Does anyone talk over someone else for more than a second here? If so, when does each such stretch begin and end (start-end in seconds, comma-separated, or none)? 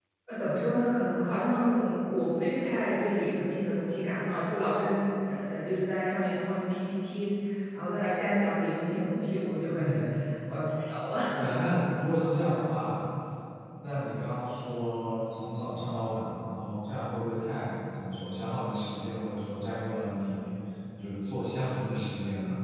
none